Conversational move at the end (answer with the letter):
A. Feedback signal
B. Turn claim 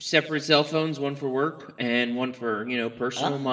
B